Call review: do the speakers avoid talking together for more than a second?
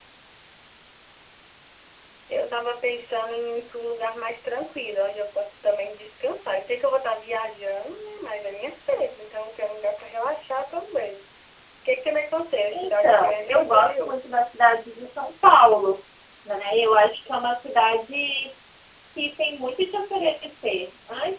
No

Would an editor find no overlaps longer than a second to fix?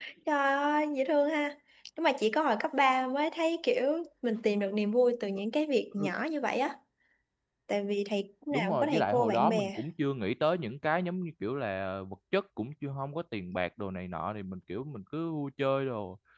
No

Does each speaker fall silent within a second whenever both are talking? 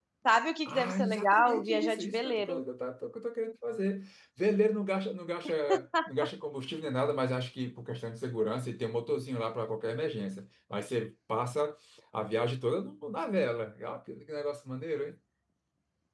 No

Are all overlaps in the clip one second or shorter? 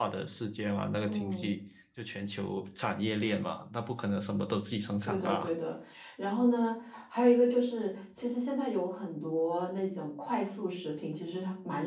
Yes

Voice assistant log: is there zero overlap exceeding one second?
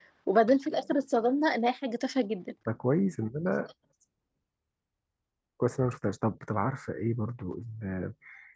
Yes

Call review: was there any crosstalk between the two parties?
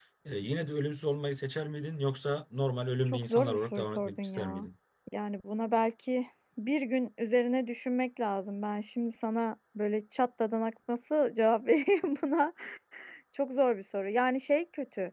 Yes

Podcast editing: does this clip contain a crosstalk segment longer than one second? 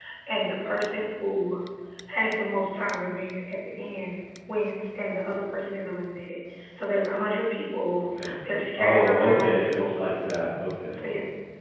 Yes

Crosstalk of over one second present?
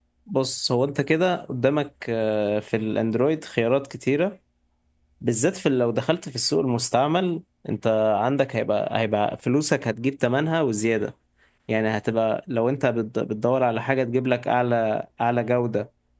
No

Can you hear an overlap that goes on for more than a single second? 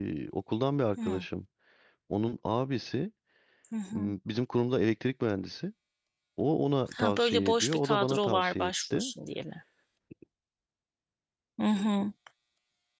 Yes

